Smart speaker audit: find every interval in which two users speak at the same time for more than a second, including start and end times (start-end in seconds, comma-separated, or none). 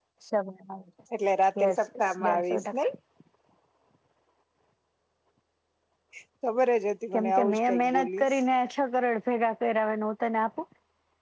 1.6-2.9, 7.1-8.4